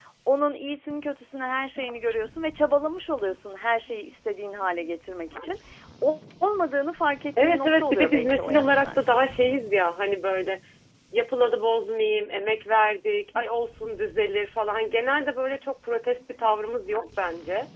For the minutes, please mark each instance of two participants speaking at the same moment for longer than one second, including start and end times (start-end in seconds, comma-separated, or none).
7.4-9.1